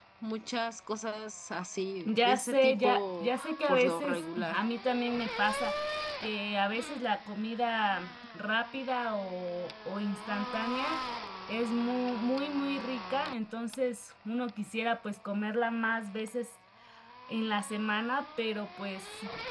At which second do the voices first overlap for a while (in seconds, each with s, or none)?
2.0 s